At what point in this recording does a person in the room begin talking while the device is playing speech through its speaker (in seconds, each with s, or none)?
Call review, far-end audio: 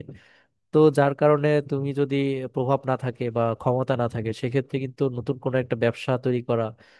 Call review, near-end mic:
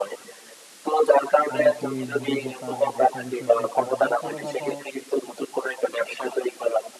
1.5 s